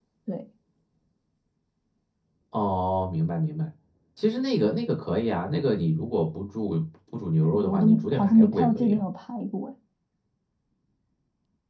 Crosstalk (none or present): present